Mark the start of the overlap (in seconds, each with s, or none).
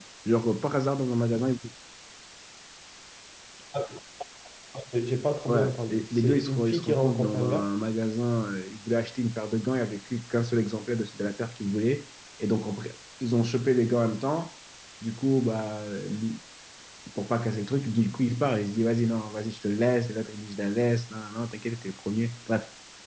5.5 s